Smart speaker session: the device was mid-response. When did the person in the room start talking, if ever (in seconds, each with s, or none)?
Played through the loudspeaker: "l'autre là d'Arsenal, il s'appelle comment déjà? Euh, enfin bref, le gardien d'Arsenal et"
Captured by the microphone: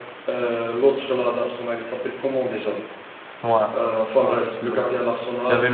3.4 s